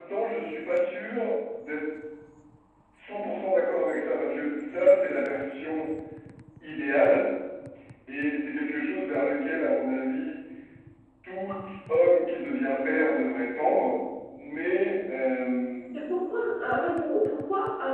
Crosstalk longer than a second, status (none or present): none